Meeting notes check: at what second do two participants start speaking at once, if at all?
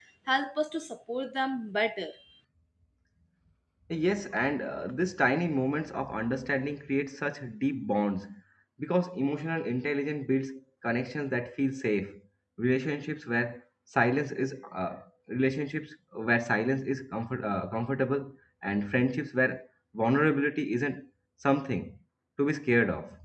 none

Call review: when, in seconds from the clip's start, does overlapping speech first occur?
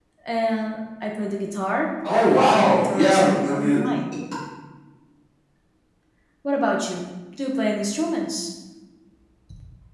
2.0 s

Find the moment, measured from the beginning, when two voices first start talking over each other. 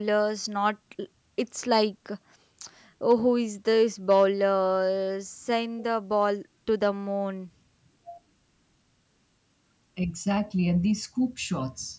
none

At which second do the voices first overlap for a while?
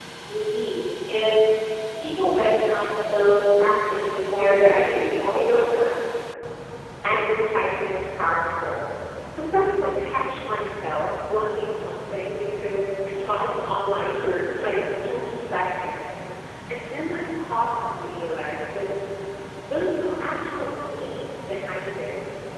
4.3 s

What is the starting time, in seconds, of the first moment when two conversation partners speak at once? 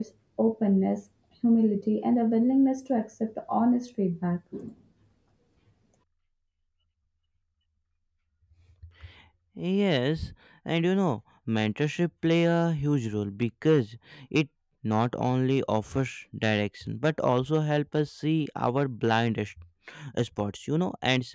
none

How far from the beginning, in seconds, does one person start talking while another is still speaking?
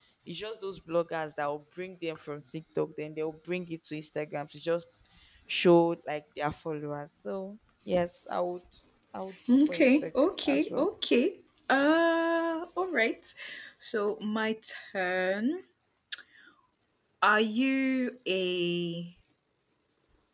9.6 s

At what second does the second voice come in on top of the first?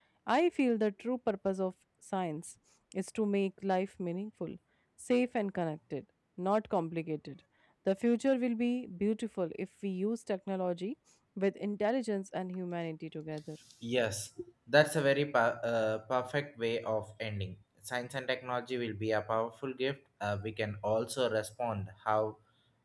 none

